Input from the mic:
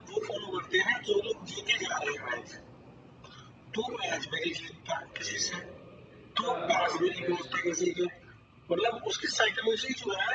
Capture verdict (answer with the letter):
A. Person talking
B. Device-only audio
A